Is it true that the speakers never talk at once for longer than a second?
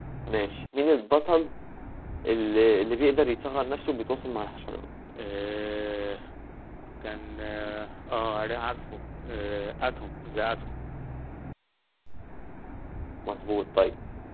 Yes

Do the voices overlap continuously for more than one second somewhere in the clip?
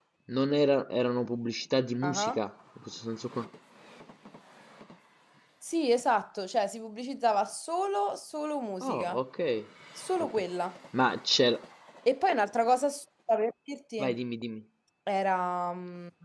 No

